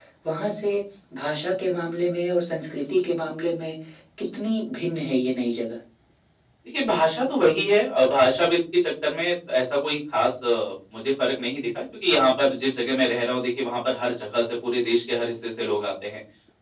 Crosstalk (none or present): none